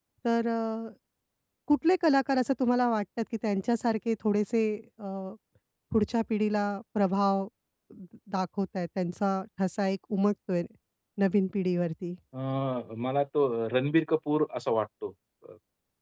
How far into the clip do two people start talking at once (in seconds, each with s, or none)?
none